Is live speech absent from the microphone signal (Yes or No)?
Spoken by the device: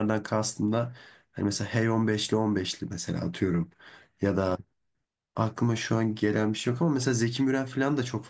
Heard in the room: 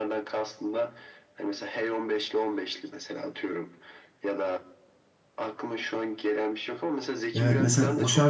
No